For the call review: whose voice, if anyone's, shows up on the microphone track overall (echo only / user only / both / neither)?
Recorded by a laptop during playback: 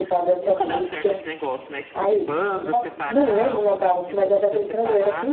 both